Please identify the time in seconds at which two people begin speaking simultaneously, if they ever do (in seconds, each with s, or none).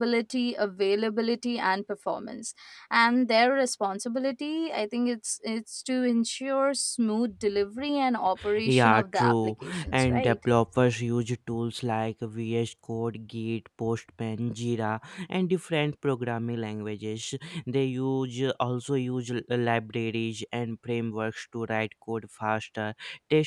8.7 s